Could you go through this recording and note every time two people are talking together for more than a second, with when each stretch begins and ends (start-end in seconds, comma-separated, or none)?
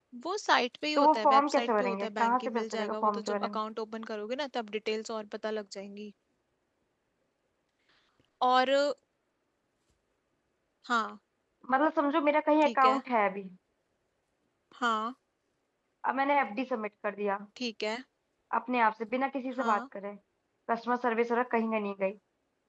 1.0-3.6